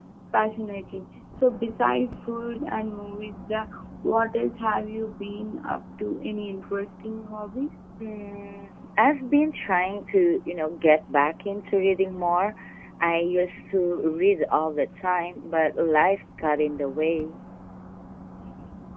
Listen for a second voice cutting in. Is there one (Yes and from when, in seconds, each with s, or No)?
No